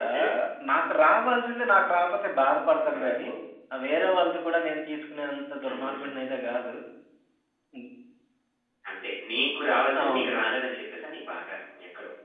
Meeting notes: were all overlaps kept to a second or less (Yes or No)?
Yes